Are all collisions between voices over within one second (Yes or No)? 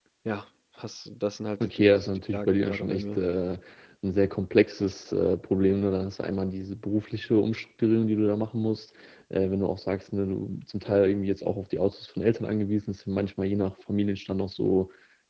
No